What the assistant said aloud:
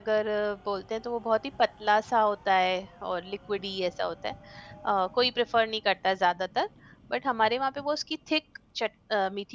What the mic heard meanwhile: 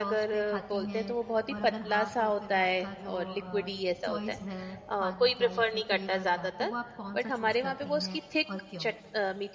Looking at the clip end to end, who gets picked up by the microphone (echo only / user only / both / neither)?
both